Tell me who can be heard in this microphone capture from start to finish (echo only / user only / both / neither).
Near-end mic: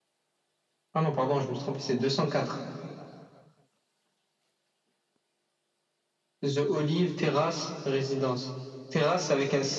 echo only